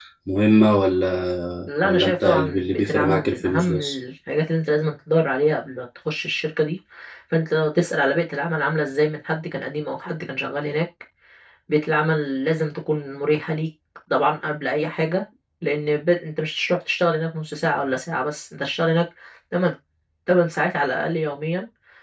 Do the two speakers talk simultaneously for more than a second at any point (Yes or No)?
Yes